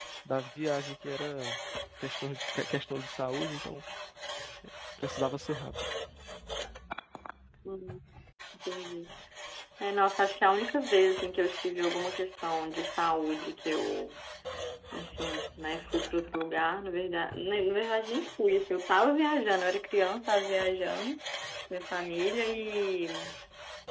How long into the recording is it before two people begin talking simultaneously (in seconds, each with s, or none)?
none